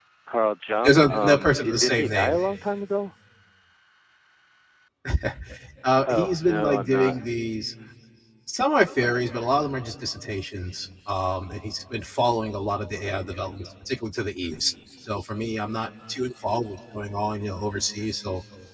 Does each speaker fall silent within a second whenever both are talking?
No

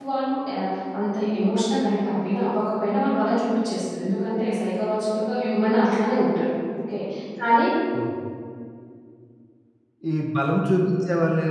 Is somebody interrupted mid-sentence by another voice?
No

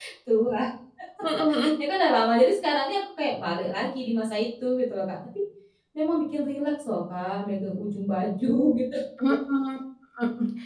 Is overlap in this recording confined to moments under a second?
Yes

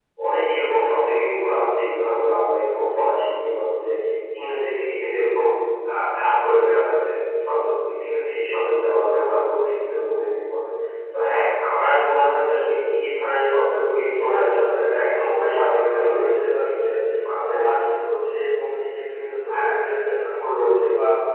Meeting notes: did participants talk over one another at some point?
Yes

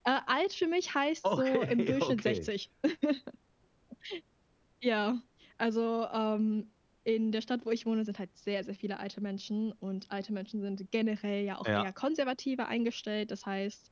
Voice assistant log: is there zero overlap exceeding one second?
No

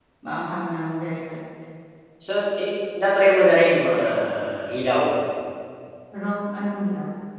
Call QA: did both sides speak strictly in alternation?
Yes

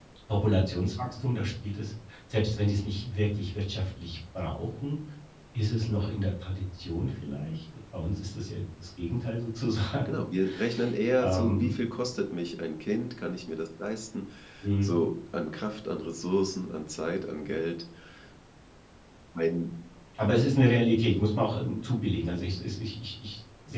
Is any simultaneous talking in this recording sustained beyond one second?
No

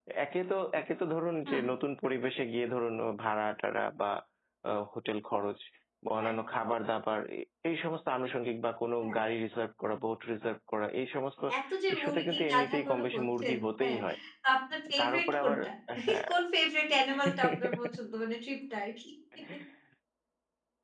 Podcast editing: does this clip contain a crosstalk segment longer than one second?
Yes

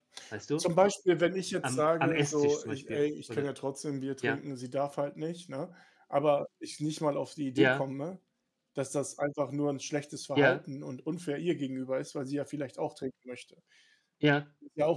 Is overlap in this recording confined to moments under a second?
No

